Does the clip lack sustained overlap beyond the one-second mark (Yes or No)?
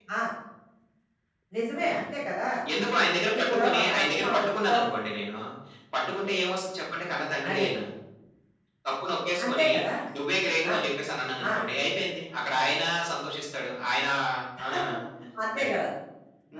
No